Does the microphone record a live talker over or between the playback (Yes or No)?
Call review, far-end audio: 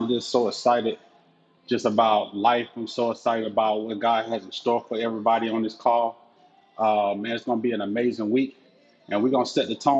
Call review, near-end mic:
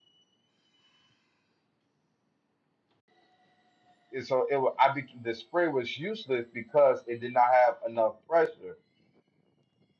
Yes